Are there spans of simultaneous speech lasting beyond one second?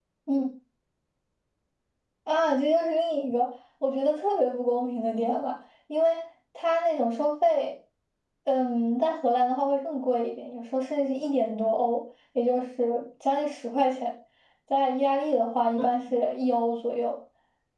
No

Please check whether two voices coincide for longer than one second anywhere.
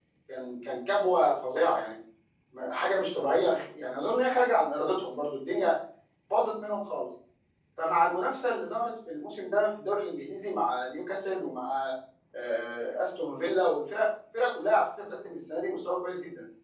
No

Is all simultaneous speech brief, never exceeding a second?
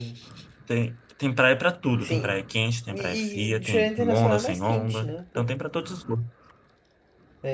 No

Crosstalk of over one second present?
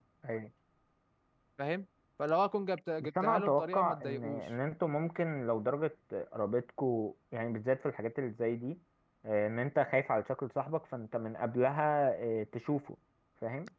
Yes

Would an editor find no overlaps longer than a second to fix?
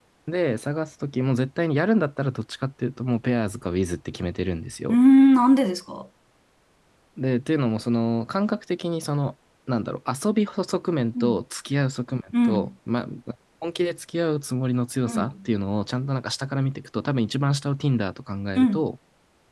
Yes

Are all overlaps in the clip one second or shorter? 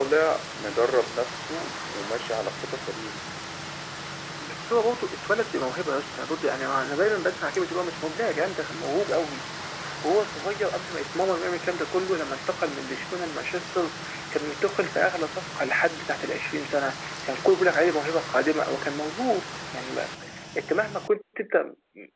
Yes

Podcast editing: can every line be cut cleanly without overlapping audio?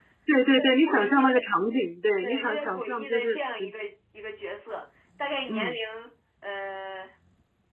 No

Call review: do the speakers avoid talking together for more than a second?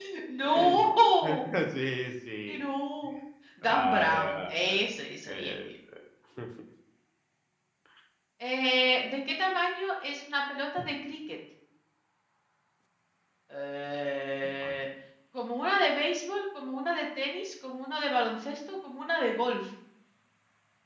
No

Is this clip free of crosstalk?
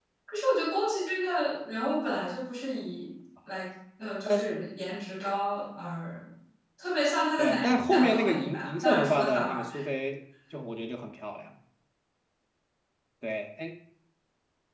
No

